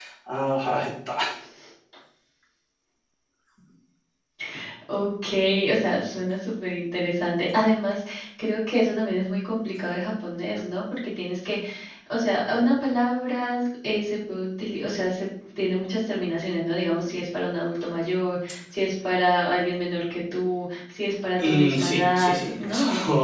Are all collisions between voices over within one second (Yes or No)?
No